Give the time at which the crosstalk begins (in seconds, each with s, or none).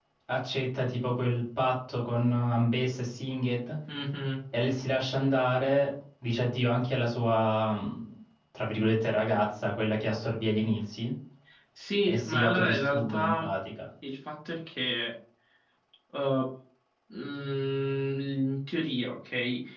12.1 s